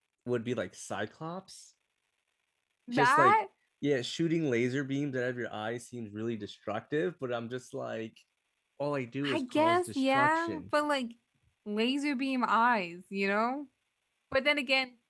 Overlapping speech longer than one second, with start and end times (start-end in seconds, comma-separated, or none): 9.2-10.6